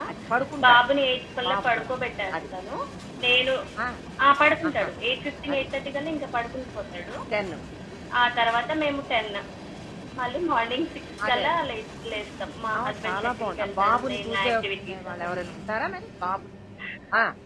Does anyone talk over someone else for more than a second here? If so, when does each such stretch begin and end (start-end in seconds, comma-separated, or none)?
12.8-15.4